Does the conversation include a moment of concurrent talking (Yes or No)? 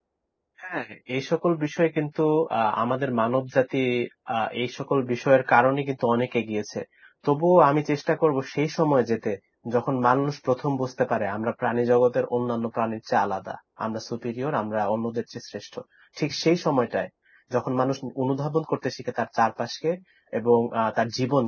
No